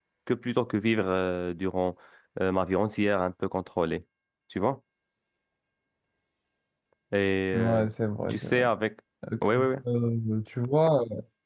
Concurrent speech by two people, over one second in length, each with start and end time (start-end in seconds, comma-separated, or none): none